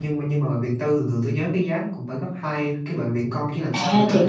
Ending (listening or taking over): taking over